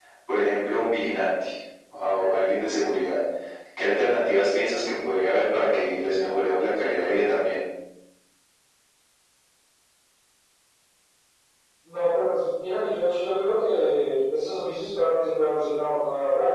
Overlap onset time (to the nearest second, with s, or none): none